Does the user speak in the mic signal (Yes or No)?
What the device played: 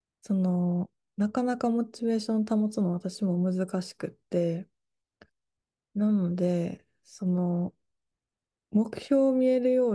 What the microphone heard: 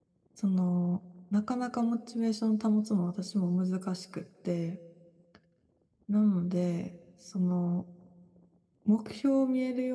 No